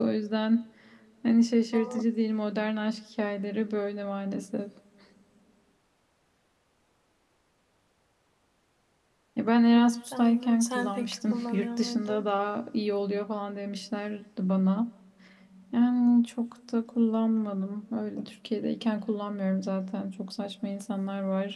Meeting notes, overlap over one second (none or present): present